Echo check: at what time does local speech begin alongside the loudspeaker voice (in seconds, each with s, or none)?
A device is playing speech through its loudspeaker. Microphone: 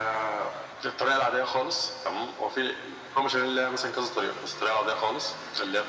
none